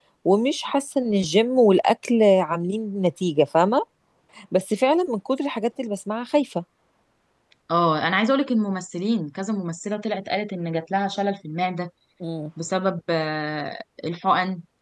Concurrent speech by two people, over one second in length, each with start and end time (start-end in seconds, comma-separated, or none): none